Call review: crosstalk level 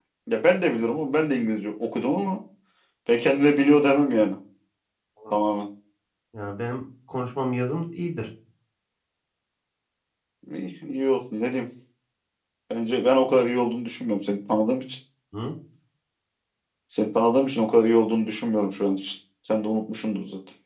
none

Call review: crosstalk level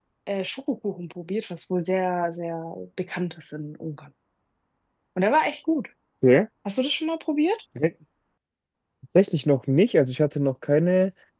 none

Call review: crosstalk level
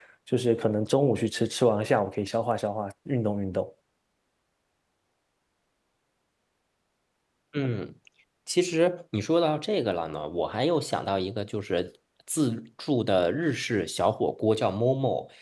none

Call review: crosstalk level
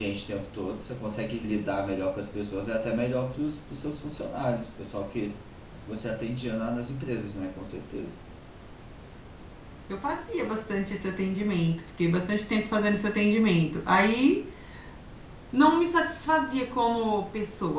none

